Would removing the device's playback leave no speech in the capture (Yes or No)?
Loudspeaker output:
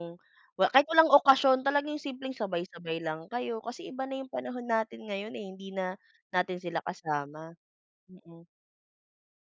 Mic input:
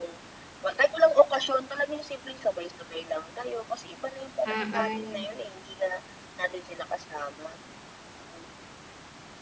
No